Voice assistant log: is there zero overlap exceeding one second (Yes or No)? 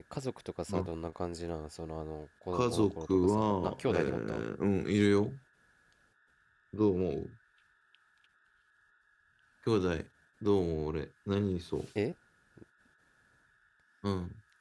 No